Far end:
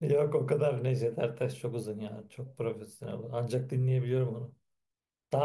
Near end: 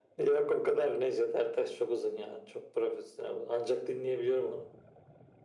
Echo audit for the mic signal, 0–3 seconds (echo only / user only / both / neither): echo only